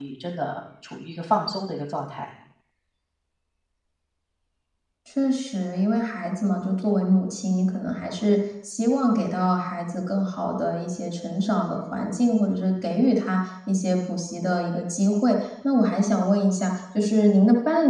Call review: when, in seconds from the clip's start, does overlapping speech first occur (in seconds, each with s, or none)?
none